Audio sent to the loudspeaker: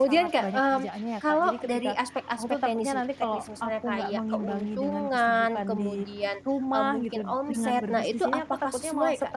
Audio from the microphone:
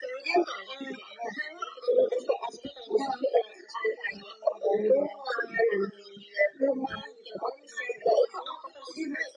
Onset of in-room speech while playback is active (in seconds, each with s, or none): none